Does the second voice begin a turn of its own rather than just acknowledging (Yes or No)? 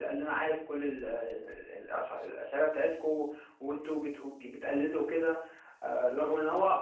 No